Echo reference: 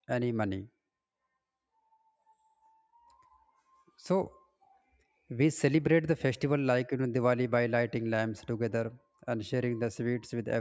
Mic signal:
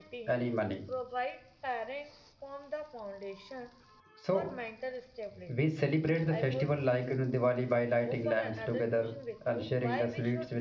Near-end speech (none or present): present